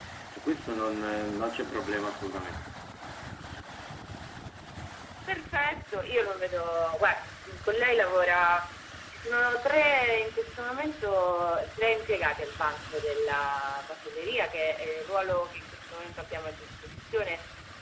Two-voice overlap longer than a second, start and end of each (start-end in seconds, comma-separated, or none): none